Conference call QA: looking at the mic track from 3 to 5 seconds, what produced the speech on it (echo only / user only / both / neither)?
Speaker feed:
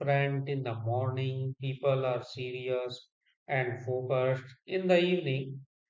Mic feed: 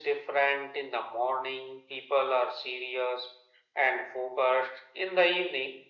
echo only